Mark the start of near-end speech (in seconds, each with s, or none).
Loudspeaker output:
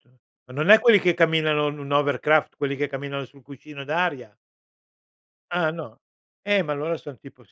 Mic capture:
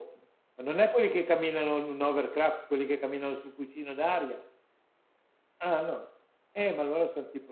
none